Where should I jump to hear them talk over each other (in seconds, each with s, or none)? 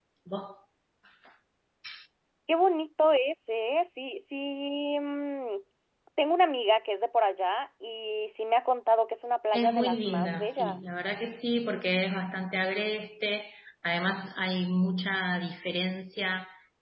9.5 s